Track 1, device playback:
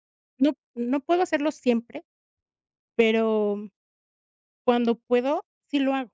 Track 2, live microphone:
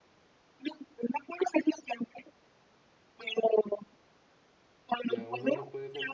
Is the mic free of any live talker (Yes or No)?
No